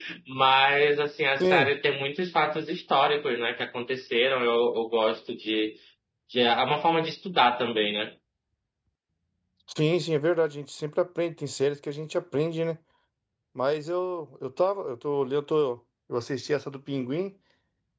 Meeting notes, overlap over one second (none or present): none